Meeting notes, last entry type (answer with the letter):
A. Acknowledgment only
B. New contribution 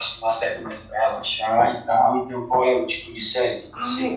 B